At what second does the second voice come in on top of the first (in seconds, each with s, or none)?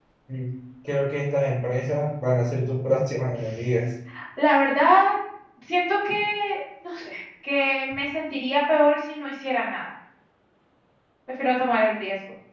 none